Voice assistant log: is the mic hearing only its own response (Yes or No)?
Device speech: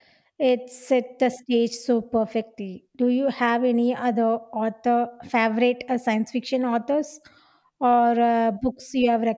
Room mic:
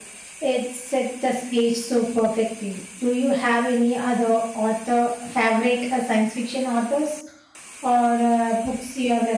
Yes